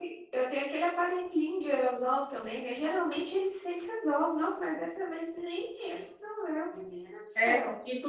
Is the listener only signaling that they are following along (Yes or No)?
No